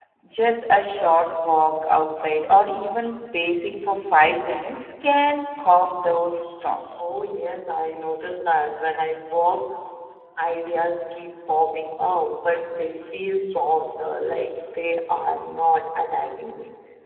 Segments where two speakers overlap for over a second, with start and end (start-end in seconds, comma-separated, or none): none